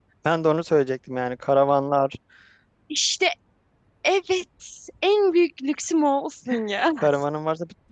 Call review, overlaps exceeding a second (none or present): none